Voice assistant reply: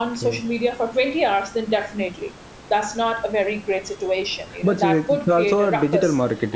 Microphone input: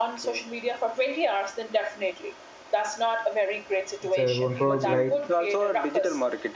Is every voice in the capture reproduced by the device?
No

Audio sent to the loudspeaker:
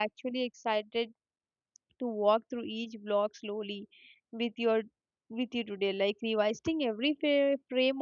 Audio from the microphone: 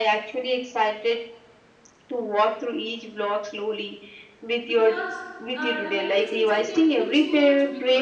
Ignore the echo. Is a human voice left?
Yes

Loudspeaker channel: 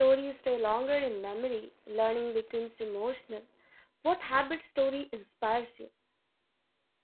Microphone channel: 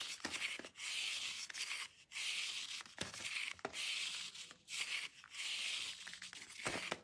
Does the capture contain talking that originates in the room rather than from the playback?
No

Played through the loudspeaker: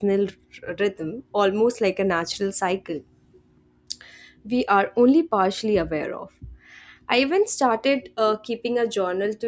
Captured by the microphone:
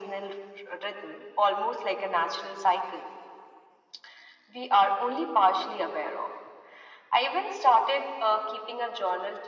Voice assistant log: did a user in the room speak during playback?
No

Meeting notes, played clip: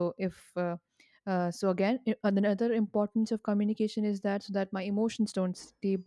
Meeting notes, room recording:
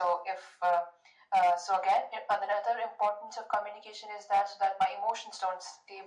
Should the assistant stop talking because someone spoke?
No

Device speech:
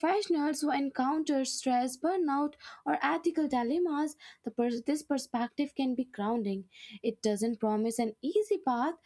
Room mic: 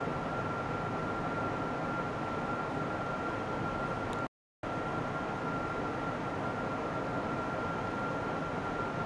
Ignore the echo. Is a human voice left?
No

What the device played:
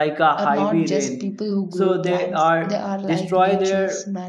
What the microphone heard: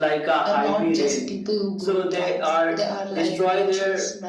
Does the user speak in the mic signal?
No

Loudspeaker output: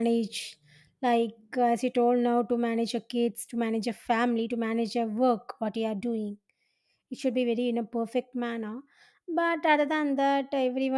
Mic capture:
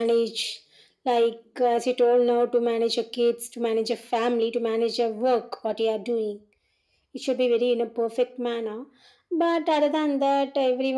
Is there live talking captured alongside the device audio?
No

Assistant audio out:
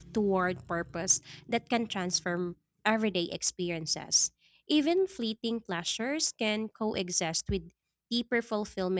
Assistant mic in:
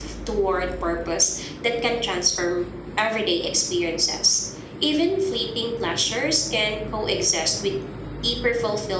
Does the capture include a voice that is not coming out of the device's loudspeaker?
No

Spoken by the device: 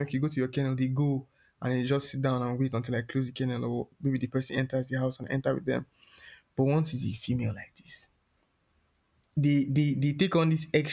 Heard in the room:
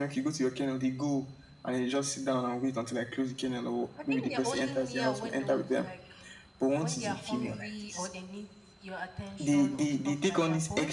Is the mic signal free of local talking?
No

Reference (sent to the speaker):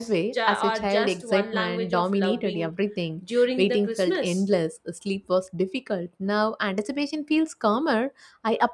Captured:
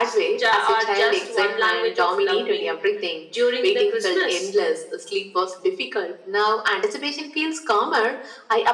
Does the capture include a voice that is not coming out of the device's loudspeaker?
No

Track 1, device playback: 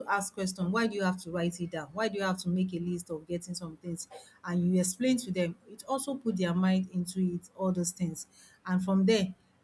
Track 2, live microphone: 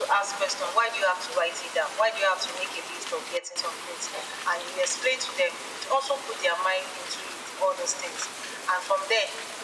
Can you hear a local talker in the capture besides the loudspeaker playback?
No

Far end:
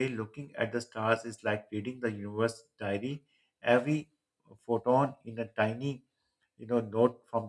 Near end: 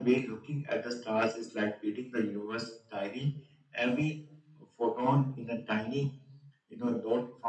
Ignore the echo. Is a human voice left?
No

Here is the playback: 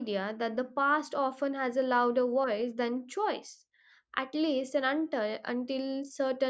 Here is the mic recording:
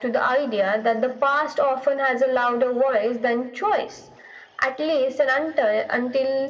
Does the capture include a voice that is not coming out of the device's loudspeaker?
No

